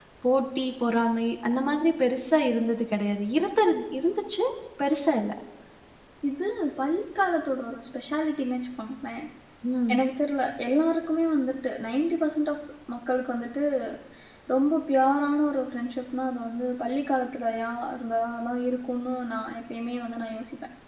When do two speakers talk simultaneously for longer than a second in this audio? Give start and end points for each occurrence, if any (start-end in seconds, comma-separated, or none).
none